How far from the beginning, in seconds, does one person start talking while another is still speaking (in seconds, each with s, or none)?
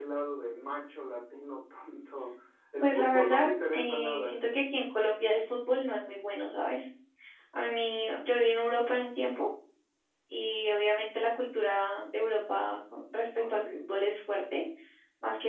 2.8 s